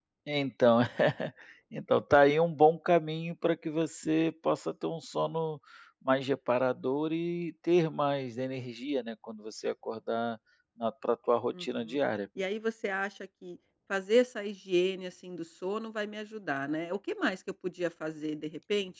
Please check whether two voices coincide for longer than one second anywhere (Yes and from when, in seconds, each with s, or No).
No